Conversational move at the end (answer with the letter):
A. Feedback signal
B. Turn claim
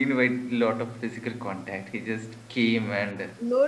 B